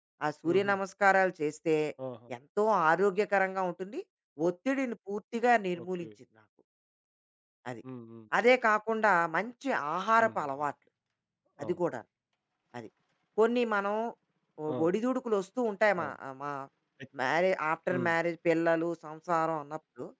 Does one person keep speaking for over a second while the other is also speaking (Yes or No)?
No